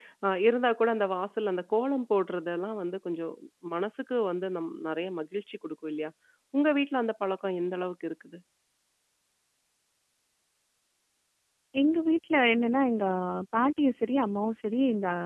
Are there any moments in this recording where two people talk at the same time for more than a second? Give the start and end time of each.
none

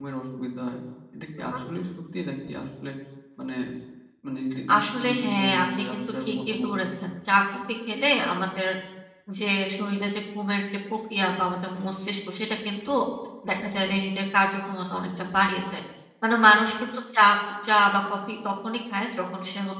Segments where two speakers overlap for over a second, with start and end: 5.0-6.9

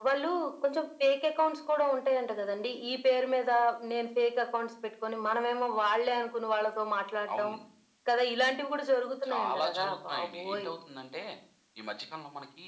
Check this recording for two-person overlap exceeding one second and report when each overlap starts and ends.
9.3-10.7

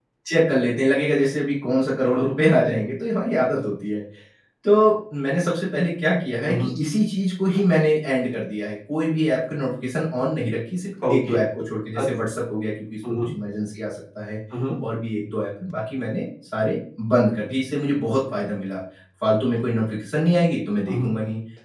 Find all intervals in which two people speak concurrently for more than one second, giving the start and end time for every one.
none

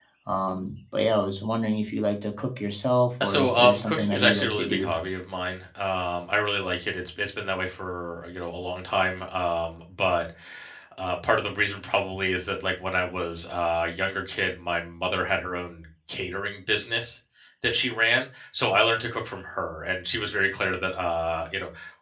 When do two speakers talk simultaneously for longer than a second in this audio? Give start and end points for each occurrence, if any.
3.2-4.9

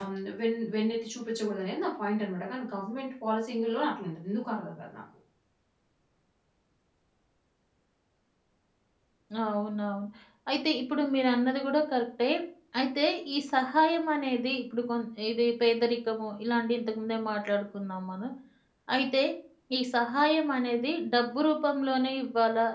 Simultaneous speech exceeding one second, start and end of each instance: none

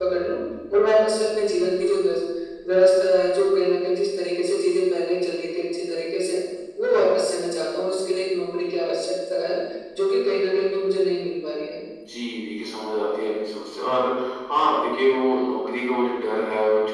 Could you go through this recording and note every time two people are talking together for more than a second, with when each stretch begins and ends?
none

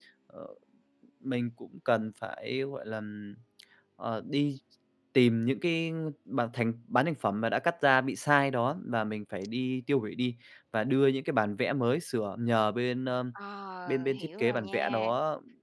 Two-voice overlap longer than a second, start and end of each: 13.9-15.1

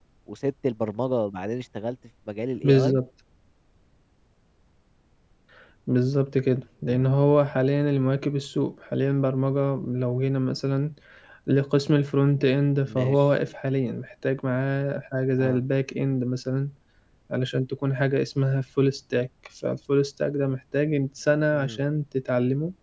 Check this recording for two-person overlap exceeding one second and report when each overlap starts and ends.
none

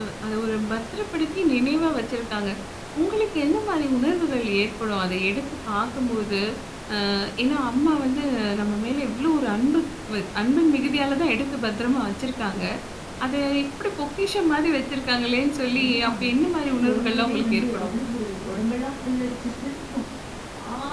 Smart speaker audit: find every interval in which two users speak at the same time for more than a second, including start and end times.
15.7-17.9

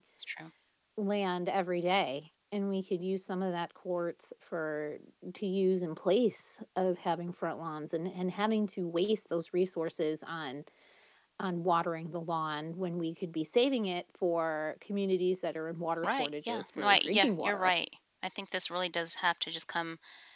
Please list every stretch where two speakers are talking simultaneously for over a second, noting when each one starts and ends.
16.0-17.7

